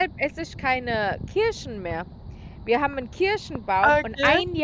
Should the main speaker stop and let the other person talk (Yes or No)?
No